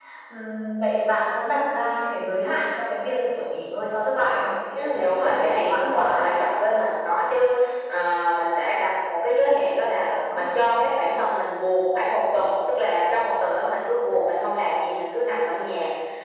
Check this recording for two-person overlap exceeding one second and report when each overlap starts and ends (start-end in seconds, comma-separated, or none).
4.8-6.3